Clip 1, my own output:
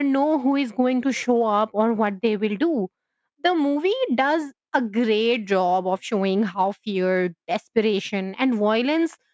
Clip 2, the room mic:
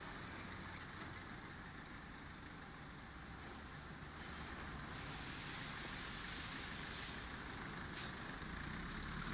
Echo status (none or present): none